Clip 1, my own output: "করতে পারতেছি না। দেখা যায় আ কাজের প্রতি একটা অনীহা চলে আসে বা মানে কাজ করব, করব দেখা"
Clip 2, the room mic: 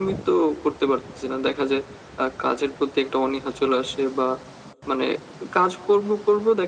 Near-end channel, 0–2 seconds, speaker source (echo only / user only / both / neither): echo only